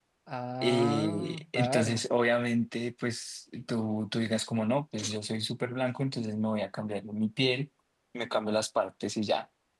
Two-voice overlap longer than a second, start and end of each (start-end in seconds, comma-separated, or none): 0.6-2.0